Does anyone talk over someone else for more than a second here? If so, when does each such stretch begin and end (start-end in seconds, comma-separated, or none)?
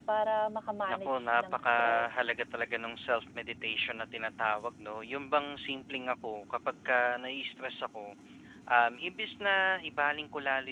0.9-2.3